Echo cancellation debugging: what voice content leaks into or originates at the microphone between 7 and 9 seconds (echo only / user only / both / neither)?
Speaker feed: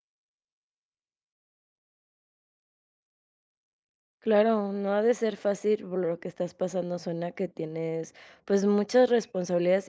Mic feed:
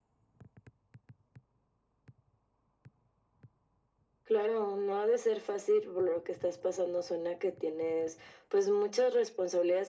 echo only